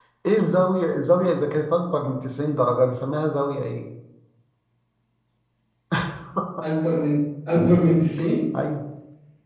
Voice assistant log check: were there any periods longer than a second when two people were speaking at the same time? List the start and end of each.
none

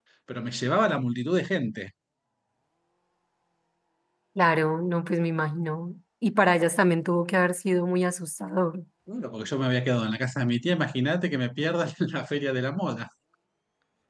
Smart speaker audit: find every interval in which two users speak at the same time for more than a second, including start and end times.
none

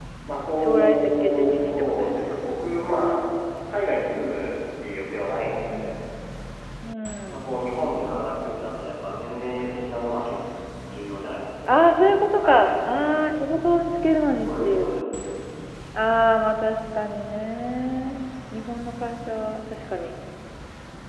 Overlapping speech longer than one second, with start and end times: 0.6-2.4

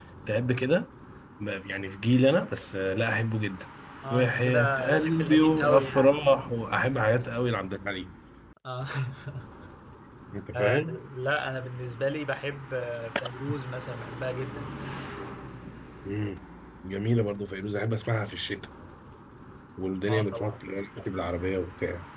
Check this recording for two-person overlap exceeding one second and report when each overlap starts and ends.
4.1-6.2

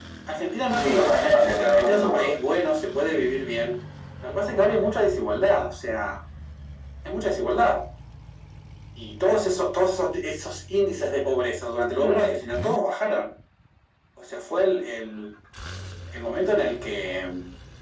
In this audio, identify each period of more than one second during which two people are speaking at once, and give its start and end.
0.7-2.3

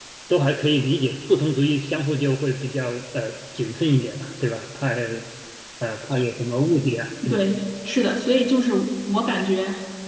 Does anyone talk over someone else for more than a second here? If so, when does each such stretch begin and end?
none

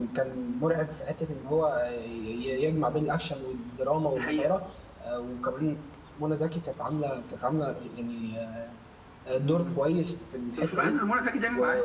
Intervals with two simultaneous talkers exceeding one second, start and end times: none

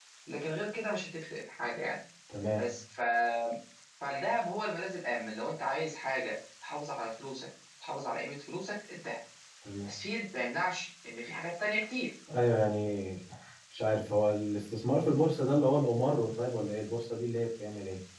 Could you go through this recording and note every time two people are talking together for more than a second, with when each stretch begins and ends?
none

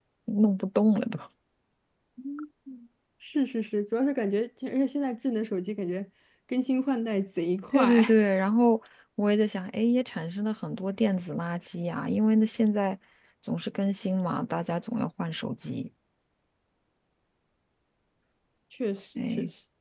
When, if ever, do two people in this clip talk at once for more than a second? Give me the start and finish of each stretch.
none

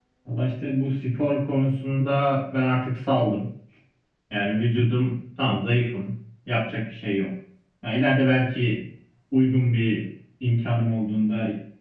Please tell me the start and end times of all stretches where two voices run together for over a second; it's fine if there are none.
none

